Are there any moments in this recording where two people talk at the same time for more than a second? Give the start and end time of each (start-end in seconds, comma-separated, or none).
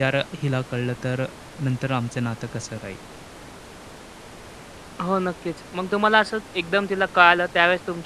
none